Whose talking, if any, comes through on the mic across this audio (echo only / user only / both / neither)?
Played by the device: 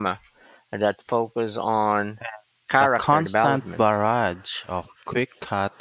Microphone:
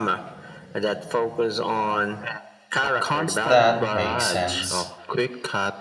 both